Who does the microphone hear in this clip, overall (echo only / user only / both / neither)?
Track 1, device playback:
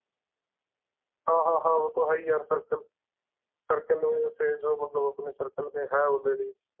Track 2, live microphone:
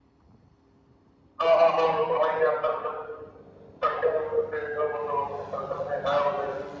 echo only